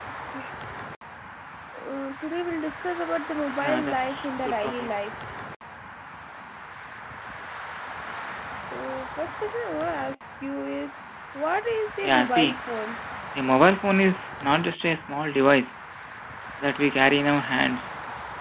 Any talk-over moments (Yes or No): Yes